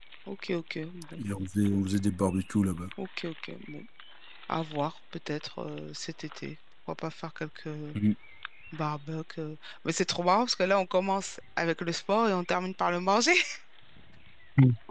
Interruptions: none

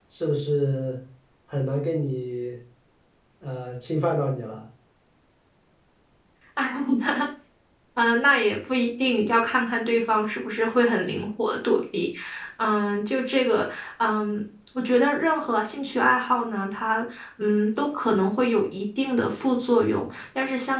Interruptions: none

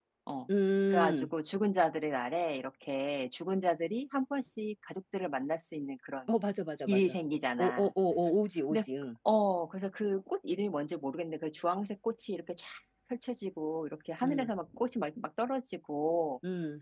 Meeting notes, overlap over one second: none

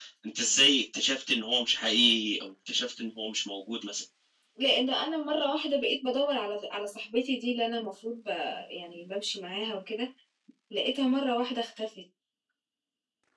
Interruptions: none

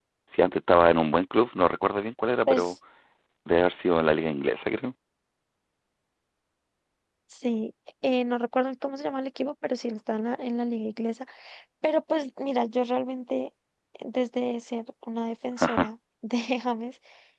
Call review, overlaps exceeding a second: none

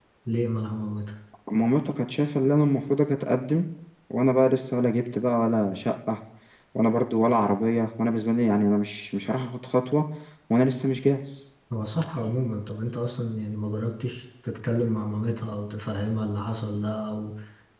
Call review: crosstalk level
none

